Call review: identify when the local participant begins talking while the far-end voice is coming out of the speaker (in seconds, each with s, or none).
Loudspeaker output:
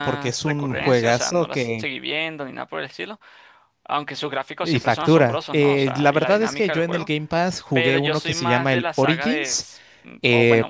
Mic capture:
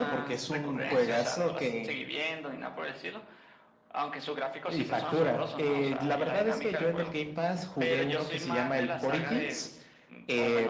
none